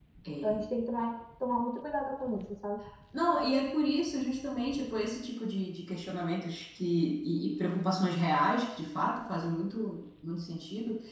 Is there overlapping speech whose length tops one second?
No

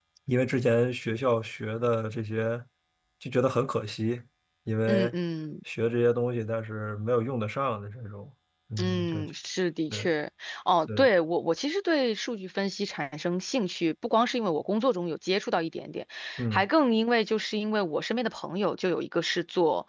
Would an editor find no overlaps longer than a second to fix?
Yes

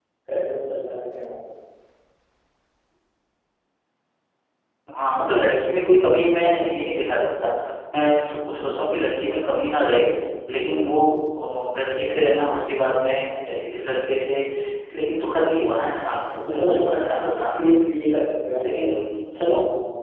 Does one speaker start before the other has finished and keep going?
Yes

